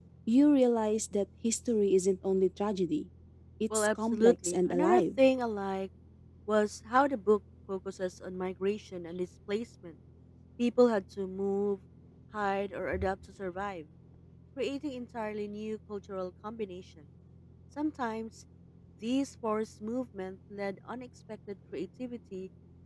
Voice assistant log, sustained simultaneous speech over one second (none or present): present